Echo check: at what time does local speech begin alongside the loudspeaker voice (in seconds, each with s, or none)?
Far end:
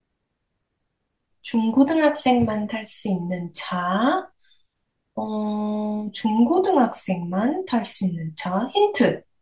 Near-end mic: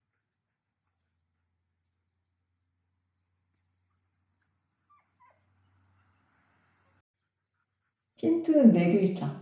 8.2 s